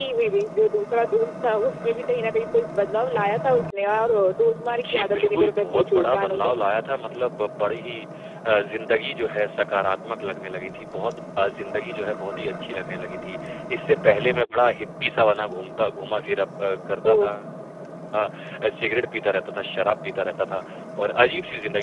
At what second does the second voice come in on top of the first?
5 s

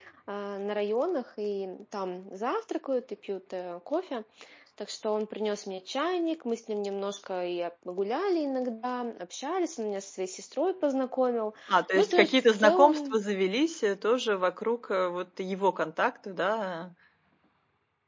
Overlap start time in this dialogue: 12 s

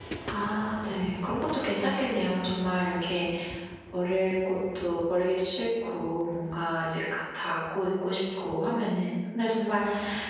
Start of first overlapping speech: none

